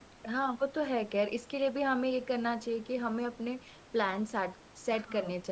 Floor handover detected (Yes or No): No